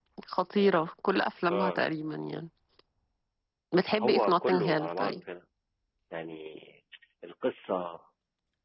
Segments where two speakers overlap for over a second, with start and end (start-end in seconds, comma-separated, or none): 4.0-5.2